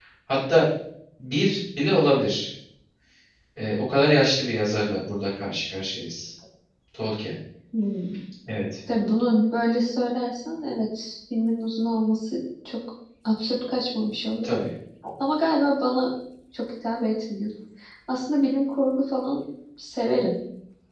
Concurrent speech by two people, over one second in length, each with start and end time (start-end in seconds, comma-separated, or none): none